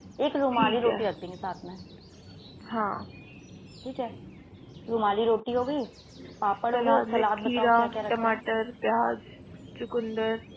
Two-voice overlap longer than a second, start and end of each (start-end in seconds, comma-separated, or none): 6.5-7.8